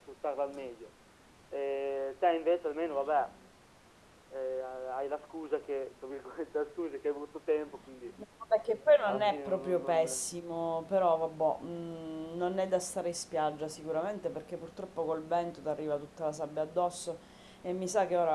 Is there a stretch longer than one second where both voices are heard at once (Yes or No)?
Yes